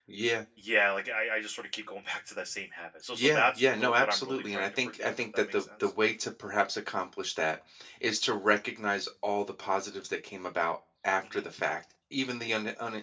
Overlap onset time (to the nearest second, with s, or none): 3 s